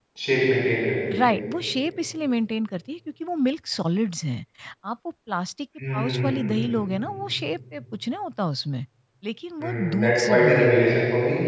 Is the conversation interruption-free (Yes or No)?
No